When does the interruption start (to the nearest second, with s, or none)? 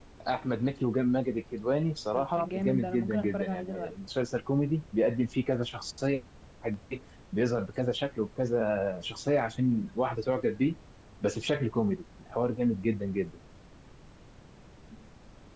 2 s